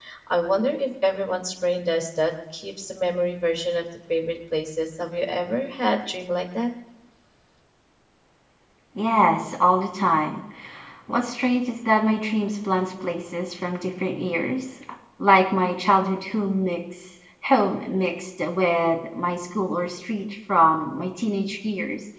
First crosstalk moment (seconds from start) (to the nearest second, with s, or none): none